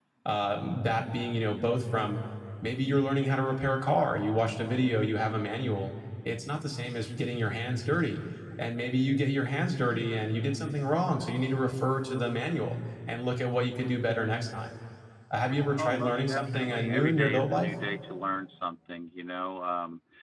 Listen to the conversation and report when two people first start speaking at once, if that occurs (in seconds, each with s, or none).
15.8 s